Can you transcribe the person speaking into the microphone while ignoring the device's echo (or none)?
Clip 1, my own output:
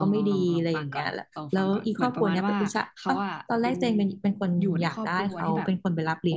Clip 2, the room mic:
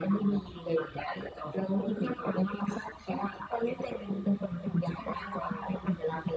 none